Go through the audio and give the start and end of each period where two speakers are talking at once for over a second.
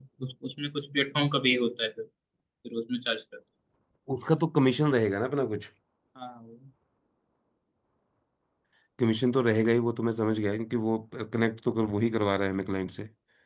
none

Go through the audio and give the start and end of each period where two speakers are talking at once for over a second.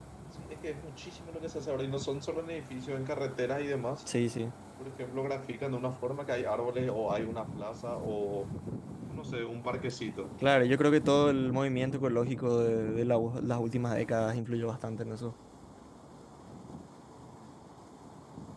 none

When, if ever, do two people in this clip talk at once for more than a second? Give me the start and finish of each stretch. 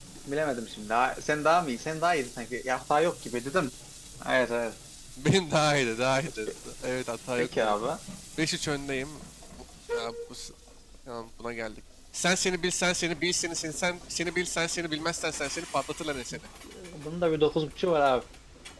none

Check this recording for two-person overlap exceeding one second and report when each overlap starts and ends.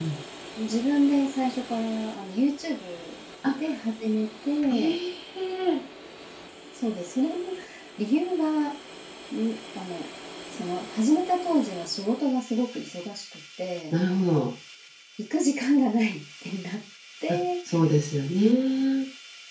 none

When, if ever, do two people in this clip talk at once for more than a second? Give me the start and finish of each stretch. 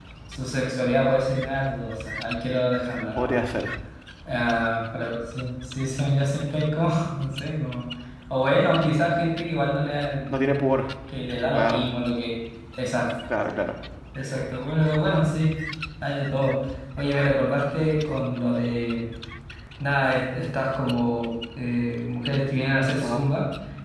none

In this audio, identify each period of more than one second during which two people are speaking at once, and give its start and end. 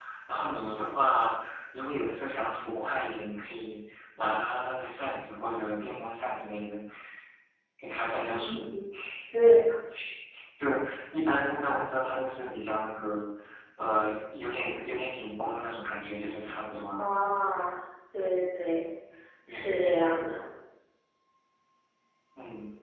none

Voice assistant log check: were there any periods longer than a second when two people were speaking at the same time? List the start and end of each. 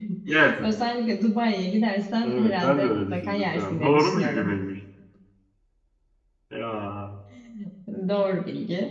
2.2-4.6

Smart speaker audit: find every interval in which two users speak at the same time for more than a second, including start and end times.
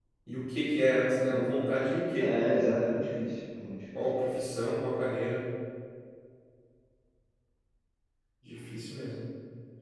none

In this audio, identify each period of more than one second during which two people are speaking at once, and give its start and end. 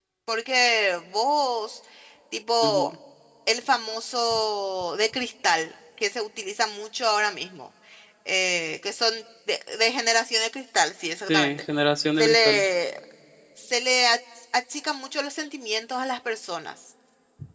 none

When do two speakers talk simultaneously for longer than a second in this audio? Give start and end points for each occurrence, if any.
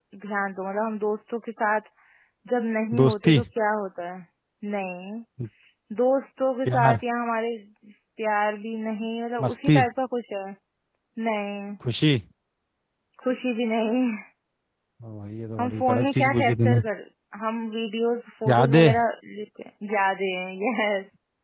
15.6-16.8

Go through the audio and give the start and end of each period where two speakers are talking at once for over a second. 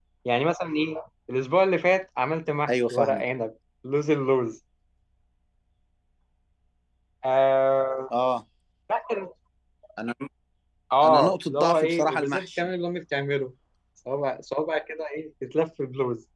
11.0-12.7

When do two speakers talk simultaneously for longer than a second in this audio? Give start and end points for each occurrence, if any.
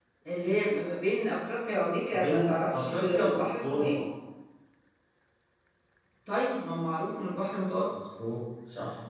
2.1-4.0

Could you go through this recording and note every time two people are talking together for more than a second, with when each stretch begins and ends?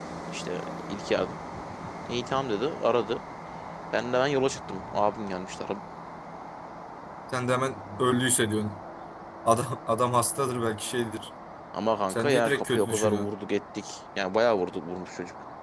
12.1-13.3

